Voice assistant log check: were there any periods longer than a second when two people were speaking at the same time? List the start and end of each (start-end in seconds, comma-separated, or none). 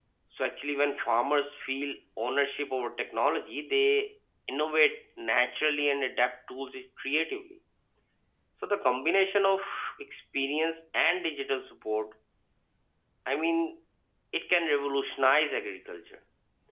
none